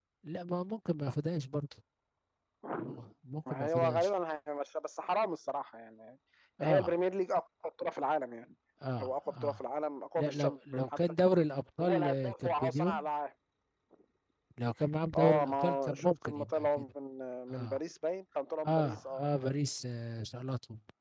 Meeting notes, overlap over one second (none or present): present